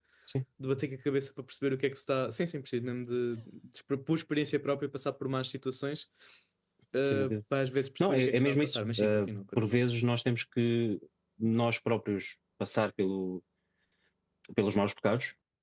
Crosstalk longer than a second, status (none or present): present